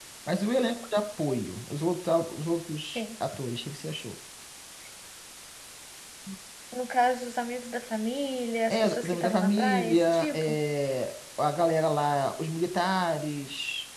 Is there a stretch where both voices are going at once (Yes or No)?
Yes